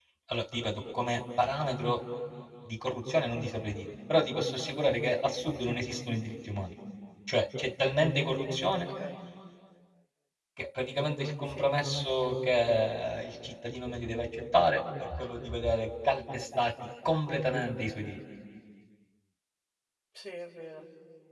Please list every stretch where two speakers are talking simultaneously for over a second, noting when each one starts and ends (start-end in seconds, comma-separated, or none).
none